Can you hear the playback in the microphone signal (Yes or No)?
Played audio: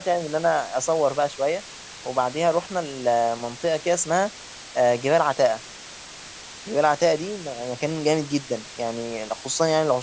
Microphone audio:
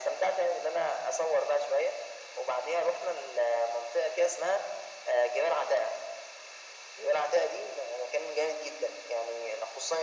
Yes